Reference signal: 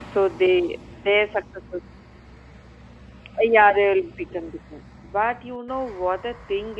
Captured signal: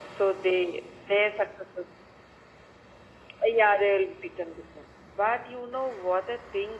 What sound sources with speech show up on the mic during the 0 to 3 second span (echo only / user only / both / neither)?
echo only